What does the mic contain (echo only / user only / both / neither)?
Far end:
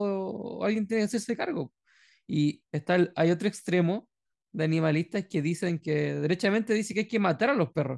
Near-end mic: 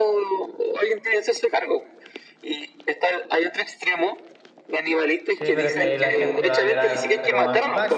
both